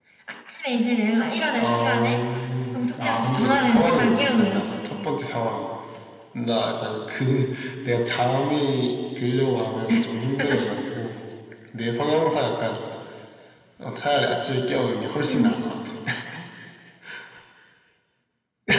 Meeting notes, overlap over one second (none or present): present